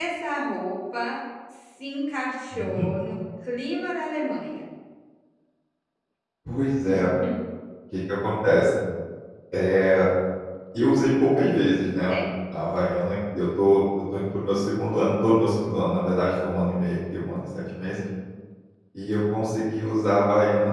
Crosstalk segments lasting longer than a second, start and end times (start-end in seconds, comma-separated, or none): none